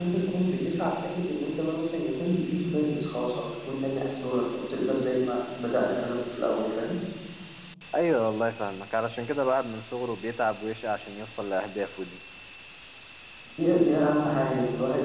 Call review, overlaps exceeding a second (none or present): none